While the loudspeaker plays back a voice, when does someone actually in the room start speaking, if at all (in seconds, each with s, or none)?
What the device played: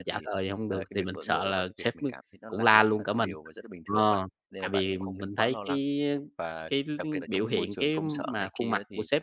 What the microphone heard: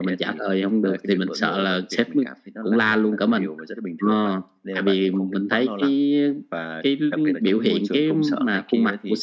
none